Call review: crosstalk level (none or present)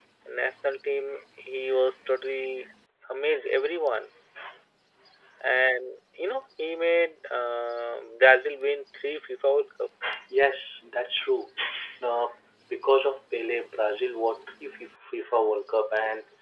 none